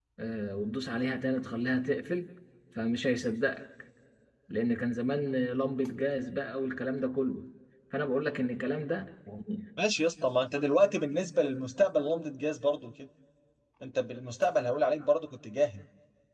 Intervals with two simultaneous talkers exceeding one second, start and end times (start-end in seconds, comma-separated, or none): none